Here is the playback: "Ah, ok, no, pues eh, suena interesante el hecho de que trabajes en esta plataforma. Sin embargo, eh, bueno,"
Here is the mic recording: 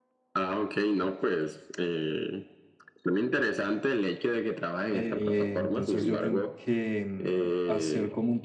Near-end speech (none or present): present